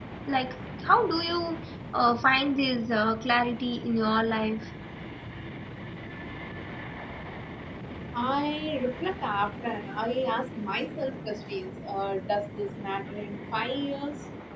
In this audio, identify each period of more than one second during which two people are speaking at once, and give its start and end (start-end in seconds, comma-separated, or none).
none